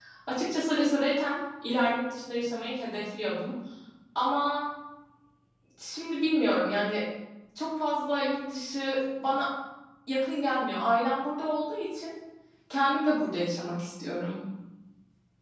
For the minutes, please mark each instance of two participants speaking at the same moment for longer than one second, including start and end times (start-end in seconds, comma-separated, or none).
none